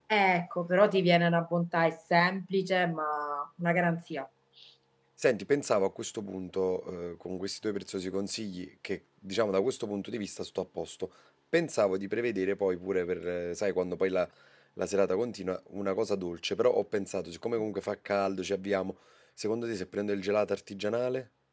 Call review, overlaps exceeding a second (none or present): none